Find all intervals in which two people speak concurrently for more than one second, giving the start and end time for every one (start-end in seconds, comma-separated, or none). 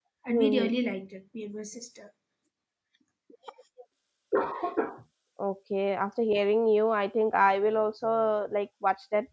none